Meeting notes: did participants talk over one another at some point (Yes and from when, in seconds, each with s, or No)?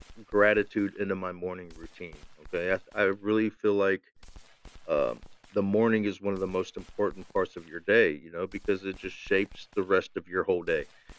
No